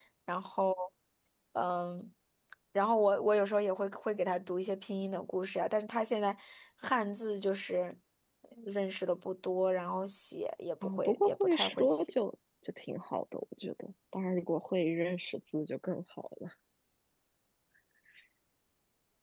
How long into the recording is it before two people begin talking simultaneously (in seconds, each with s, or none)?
10.8 s